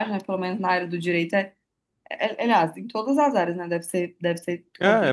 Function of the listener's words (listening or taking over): taking over